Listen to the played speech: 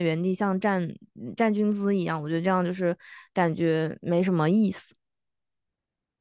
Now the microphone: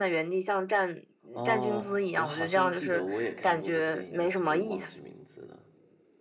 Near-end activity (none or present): present